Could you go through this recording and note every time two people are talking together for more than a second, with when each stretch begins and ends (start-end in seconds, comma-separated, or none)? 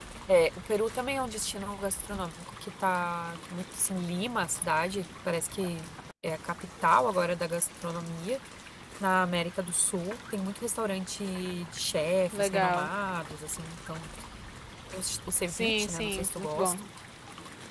15.5-16.8